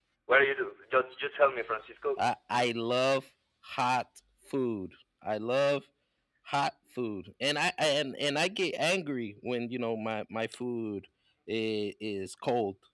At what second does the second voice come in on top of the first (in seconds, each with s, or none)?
none